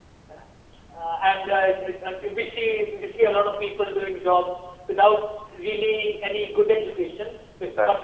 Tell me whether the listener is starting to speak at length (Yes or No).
No